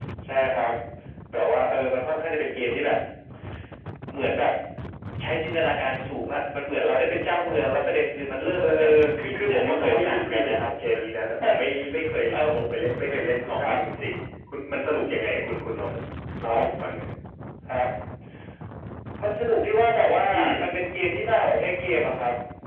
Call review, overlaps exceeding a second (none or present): present